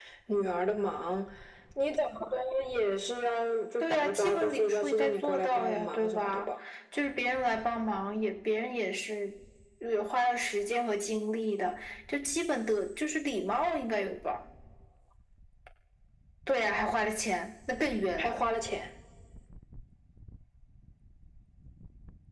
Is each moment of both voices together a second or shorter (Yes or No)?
No